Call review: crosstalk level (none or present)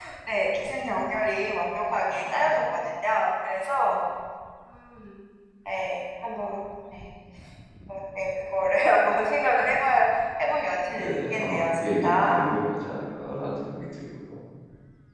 present